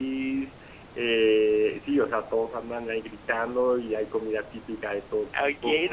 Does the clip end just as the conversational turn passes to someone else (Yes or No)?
Yes